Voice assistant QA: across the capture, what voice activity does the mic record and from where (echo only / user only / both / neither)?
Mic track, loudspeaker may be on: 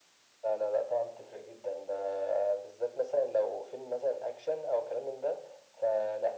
echo only